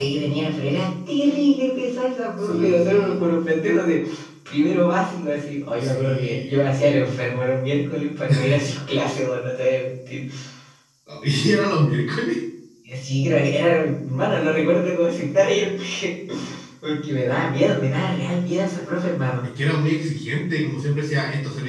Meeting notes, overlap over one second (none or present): present